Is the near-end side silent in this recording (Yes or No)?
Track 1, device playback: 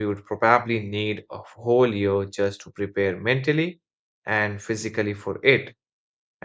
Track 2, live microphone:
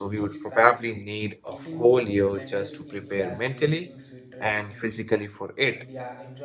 No